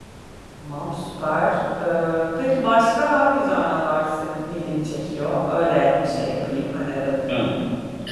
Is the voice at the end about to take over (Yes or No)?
Yes